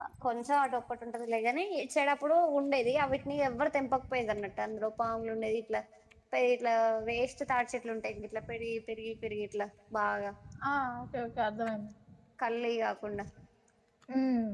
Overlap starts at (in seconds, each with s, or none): none